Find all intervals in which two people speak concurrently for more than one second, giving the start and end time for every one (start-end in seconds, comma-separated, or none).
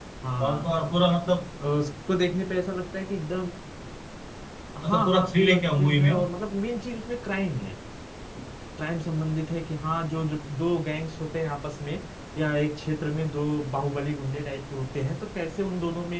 4.8-6.1